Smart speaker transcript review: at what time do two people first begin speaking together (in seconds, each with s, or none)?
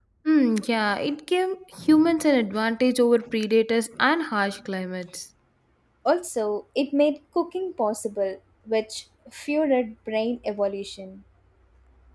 none